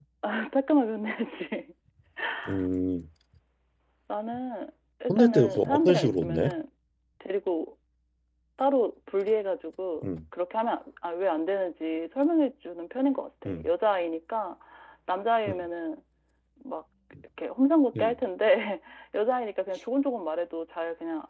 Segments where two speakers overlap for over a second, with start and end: 5.1-6.5

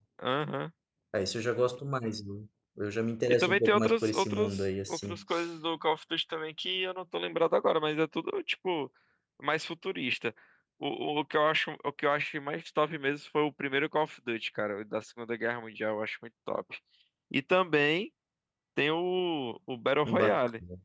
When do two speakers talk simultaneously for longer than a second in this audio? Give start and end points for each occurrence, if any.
3.3-5.2

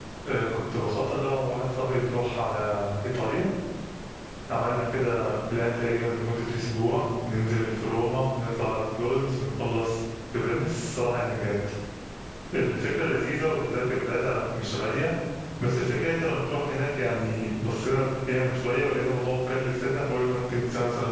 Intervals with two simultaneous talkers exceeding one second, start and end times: none

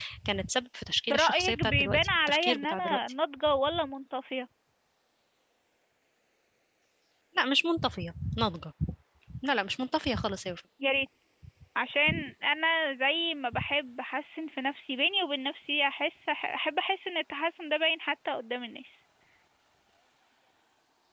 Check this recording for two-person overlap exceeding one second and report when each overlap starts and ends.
1.1-3.0

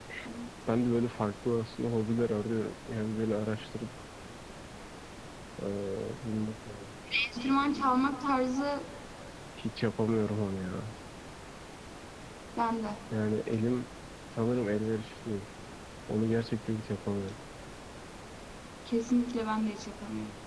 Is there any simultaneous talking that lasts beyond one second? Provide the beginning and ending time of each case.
none

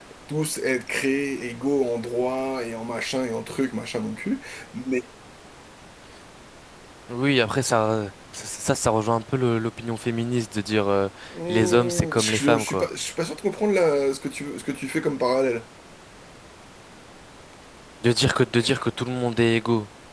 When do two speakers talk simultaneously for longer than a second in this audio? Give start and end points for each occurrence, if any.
11.5-12.9

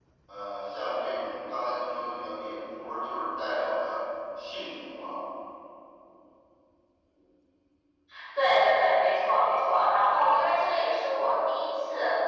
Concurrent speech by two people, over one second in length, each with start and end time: none

